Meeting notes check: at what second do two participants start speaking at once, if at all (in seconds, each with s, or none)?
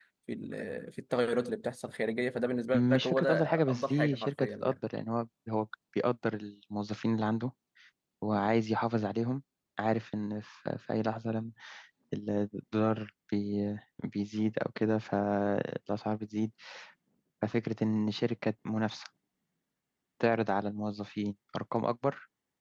2.7 s